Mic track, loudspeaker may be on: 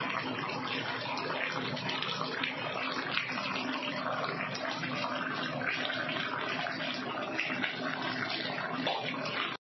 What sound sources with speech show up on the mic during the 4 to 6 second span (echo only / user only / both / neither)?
neither